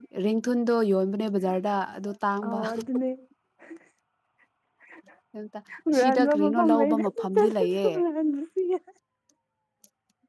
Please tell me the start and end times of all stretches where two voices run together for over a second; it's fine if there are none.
5.9-7.9

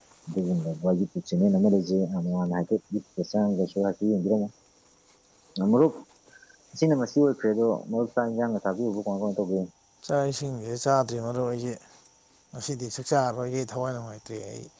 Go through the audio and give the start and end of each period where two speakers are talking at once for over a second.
none

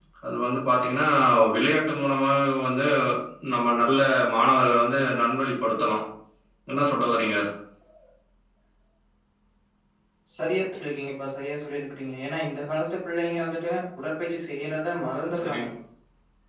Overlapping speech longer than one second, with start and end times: none

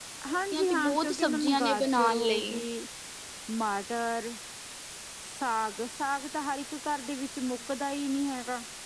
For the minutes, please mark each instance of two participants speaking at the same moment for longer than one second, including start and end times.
0.5-2.5

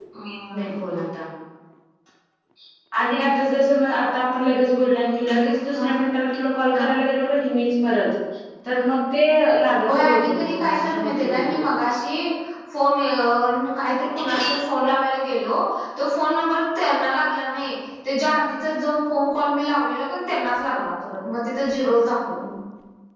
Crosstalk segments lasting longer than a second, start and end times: 9.9-11.7

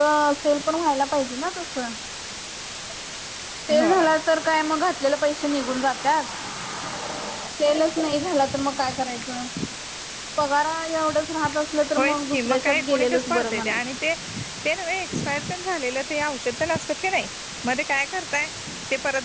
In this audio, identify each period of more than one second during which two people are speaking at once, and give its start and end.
12.0-13.8

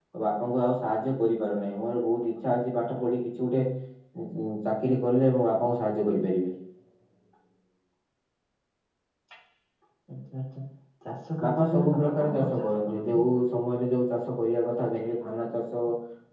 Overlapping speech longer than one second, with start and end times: 11.4-13.2

